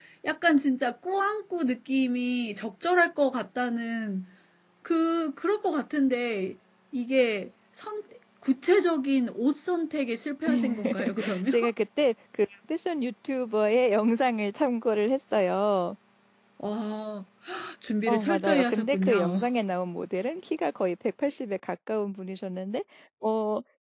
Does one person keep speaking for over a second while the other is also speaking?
Yes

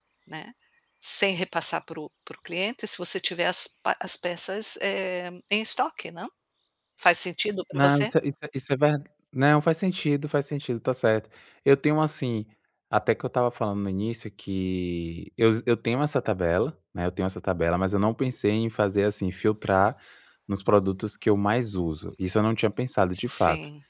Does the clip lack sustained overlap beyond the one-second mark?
Yes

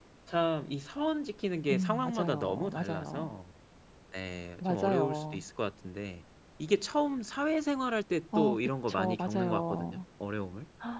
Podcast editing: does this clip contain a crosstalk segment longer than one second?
Yes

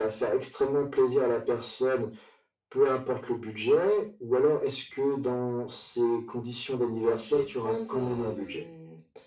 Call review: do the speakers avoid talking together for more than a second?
No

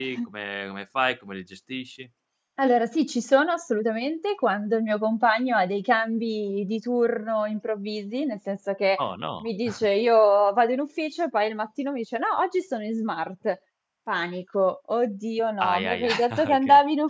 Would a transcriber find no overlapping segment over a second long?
No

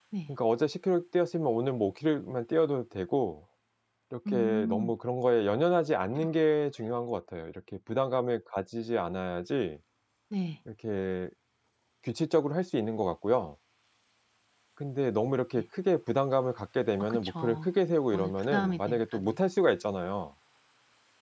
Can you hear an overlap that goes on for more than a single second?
Yes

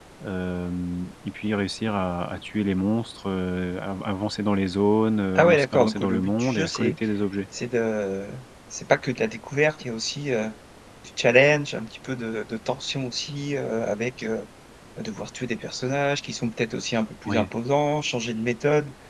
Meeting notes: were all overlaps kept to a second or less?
No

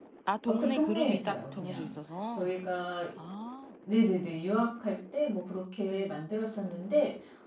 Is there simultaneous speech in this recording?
Yes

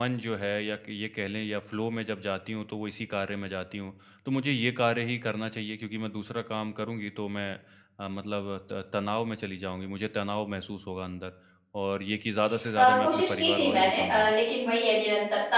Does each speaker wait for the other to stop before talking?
No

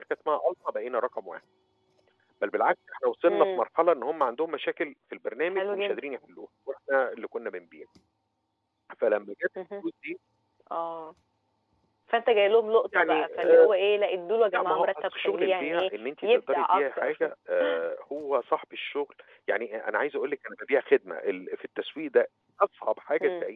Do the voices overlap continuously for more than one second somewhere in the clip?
Yes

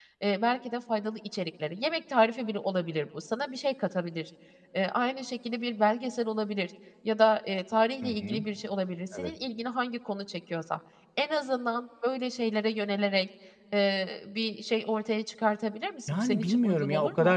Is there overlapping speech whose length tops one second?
Yes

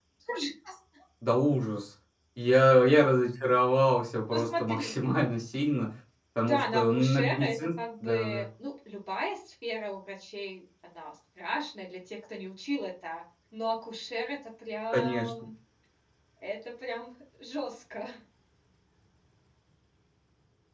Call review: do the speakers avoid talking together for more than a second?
No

